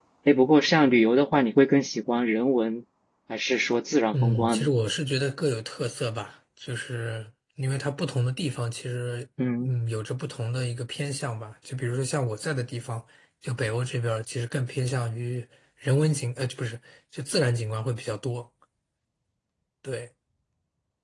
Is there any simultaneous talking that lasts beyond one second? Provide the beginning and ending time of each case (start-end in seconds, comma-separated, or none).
none